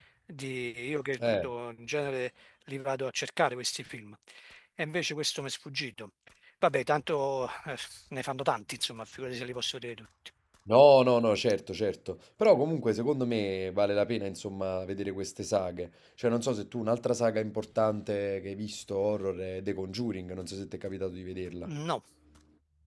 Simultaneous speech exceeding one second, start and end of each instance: none

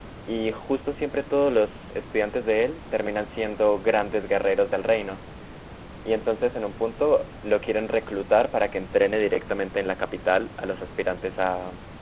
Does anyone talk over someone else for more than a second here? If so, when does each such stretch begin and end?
none

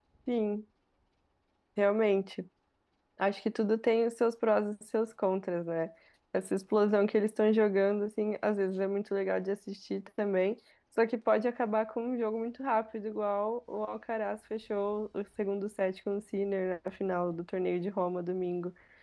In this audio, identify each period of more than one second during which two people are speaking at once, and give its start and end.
none

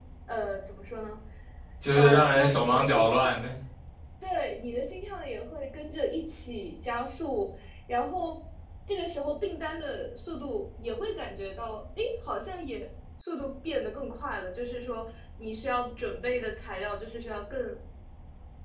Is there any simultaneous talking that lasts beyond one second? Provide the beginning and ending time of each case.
1.9-3.3

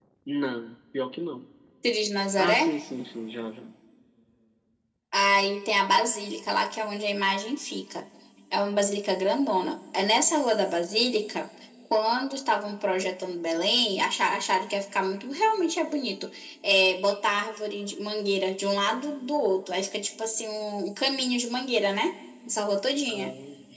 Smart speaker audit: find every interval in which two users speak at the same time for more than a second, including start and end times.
none

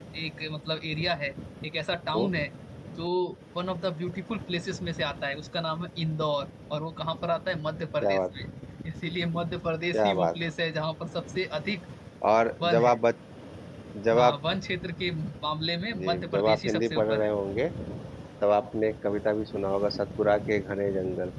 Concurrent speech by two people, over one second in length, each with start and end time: 15.9-17.3

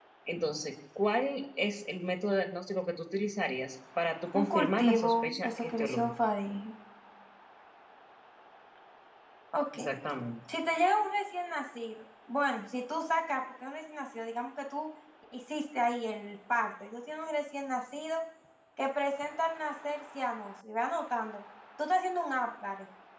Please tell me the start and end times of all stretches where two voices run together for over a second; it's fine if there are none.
4.4-6.1

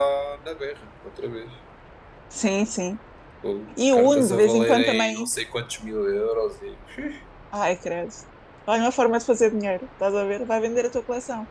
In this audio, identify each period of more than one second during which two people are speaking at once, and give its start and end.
3.9-5.3

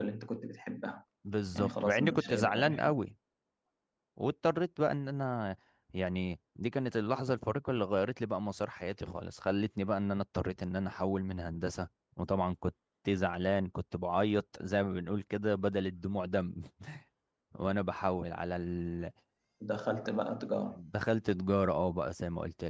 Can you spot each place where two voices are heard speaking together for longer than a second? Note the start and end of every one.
1.6-2.9

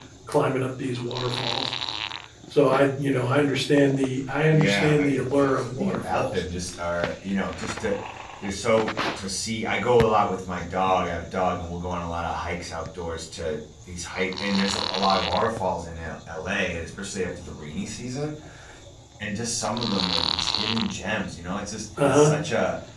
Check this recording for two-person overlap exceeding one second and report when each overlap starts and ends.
4.5-6.4

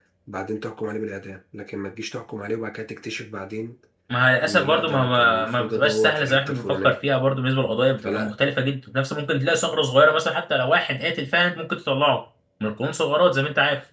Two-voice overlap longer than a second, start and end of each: 4.4-7.0

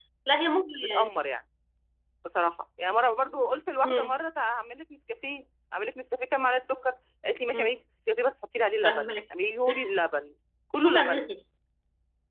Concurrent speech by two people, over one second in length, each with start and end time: none

